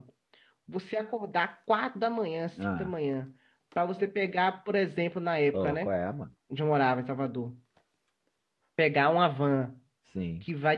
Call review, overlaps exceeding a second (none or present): none